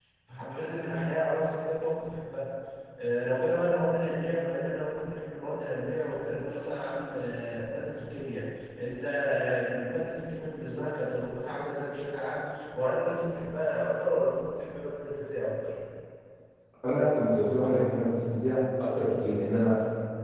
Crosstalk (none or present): none